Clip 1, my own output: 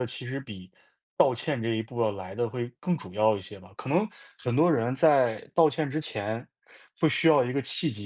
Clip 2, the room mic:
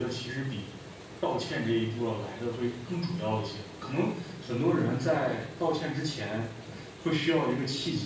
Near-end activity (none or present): none